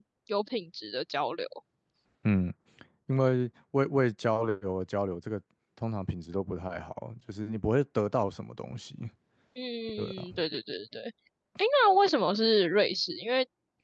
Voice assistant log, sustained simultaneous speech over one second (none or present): none